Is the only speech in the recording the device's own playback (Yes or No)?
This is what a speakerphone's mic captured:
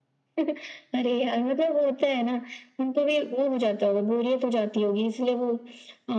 Yes